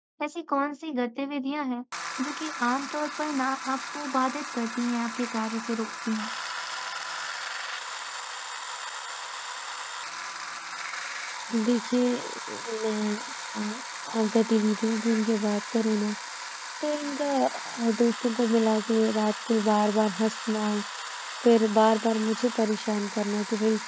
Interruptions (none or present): none